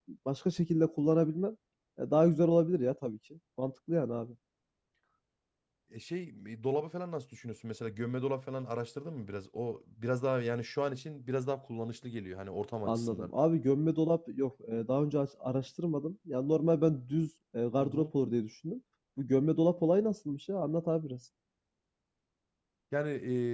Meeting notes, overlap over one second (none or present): none